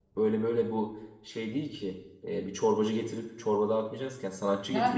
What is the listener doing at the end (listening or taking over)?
taking over